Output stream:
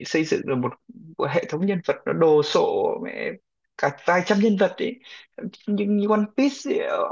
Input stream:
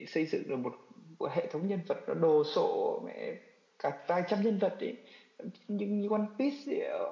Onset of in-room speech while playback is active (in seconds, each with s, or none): none